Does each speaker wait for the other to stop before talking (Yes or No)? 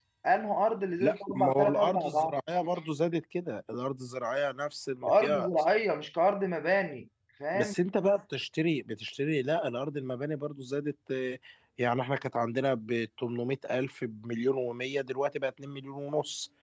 No